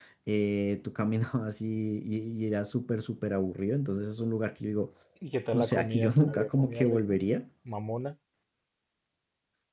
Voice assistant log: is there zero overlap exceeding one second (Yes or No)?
No